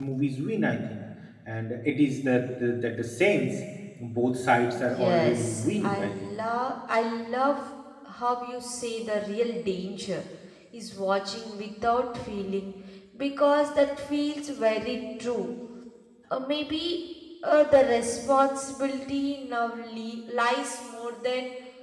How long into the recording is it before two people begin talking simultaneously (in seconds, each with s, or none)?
4.7 s